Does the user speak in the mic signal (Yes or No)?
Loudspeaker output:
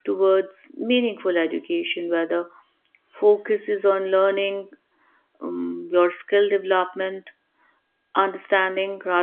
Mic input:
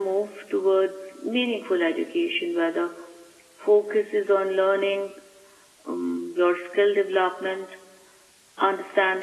No